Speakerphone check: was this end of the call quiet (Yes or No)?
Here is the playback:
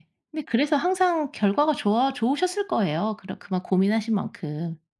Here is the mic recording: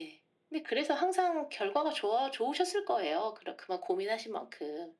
Yes